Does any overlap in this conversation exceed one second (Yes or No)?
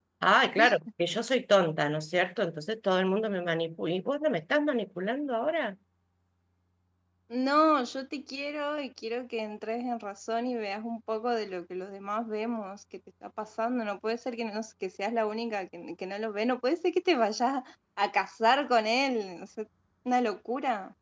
No